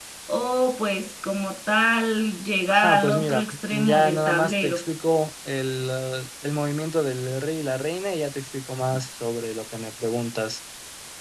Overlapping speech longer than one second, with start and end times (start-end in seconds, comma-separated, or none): 2.7-4.8